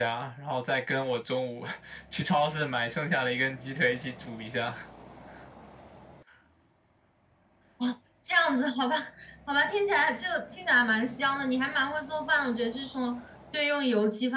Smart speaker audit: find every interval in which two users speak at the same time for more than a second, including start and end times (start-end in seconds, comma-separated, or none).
none